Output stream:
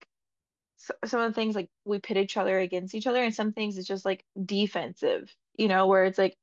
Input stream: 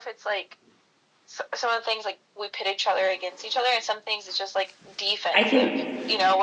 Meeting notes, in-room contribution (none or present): present